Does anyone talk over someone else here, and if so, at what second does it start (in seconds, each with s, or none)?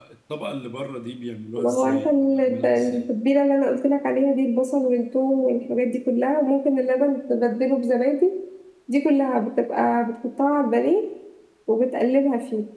1.6 s